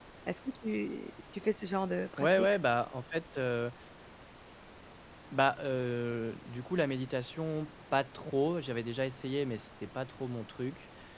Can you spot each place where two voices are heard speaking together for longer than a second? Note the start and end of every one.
none

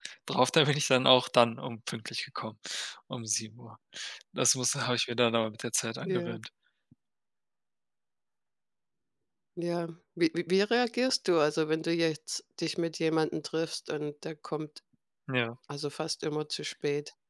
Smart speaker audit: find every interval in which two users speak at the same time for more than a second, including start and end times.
none

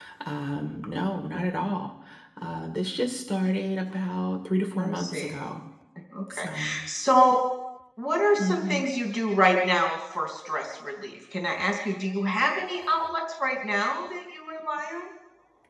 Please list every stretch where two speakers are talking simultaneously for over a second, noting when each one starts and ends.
none

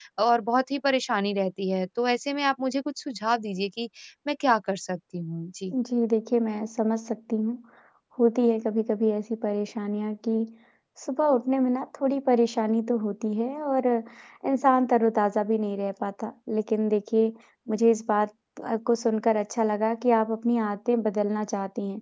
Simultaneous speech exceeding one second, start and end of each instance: none

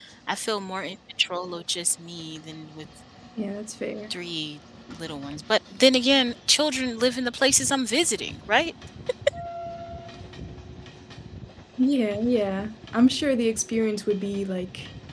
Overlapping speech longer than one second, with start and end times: none

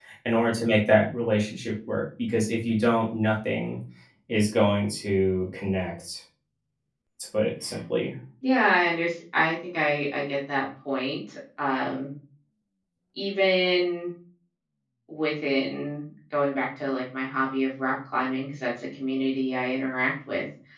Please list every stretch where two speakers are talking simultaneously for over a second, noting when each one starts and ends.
none

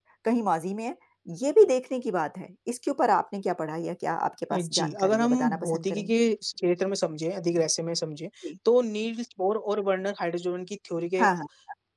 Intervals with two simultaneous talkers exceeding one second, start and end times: 4.5-6.2

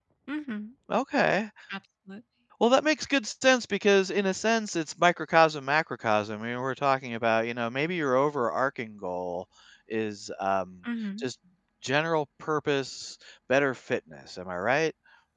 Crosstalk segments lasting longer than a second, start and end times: none

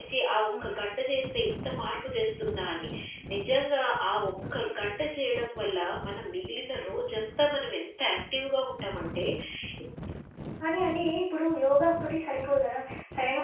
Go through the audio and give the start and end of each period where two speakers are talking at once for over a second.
none

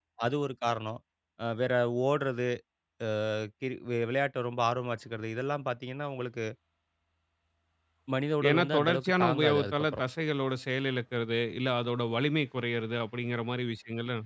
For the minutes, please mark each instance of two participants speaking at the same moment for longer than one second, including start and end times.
8.5-10.0

